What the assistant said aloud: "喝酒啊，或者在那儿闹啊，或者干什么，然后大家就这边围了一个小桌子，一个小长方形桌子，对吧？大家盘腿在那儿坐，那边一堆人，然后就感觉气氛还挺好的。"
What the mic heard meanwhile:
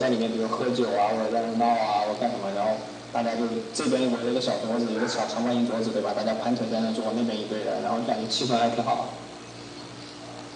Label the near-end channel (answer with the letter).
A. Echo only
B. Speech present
A